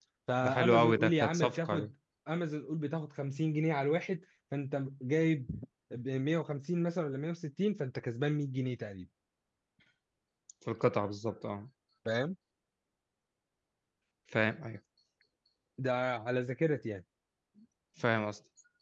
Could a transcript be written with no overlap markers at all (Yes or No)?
No